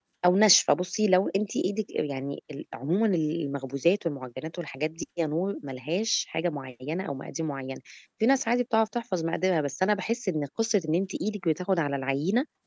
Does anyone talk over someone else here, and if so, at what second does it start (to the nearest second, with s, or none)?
none